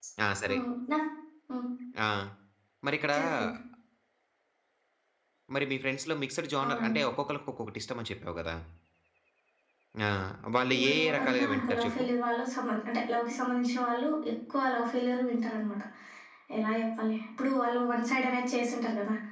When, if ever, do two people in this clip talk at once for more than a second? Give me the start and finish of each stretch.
10.7-12.0

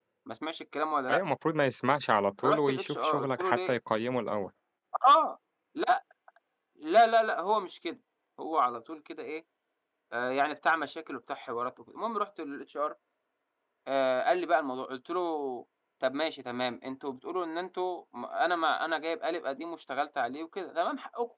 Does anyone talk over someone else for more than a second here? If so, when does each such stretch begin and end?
2.4-3.8

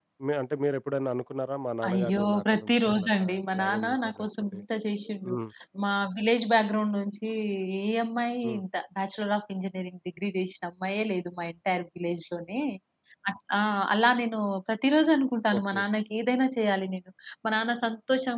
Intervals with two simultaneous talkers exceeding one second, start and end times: 1.9-4.6

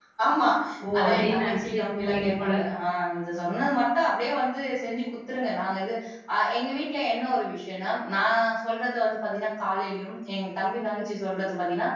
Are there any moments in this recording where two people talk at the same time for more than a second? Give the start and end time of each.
1.0-2.5

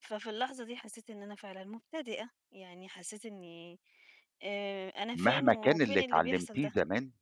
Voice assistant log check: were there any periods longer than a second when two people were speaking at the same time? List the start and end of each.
5.1-6.7

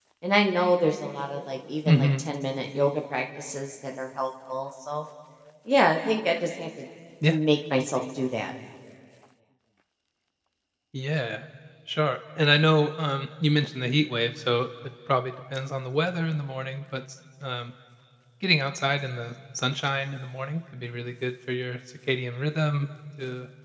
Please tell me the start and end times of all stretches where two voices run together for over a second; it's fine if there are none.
none

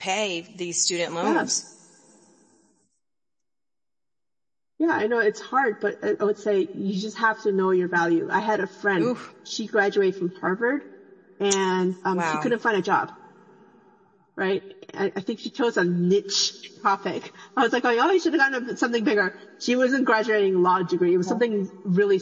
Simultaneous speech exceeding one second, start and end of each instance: none

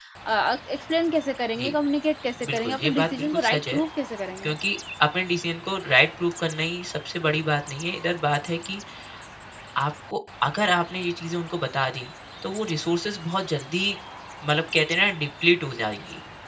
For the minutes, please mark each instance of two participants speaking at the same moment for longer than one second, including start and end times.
2.5-3.8

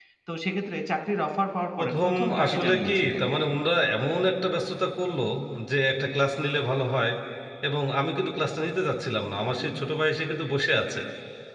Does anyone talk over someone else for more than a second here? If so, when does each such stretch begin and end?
1.8-3.2

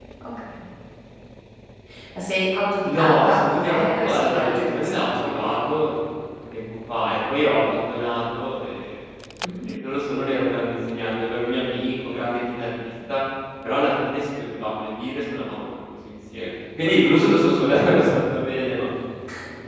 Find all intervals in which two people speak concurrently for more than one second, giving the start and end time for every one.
2.8-5.8

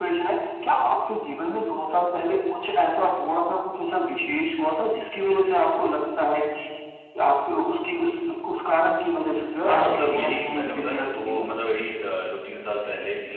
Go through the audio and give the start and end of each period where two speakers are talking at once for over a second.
9.6-11.4

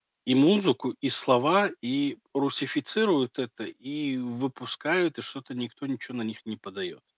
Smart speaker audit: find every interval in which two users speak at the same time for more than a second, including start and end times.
none

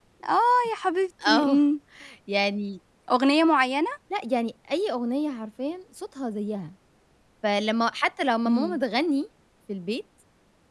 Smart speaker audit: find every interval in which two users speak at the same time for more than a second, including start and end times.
none

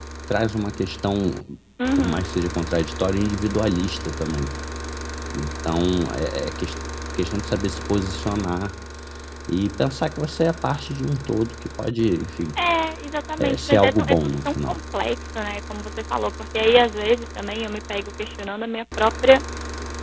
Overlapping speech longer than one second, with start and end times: 13.4-14.8

